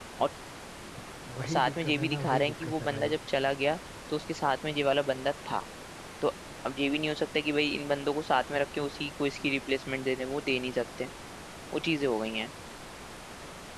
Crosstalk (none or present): present